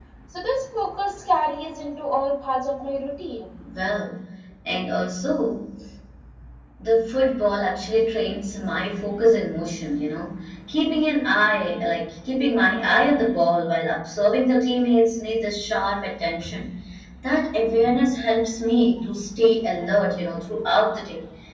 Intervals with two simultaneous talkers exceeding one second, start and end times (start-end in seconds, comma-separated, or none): none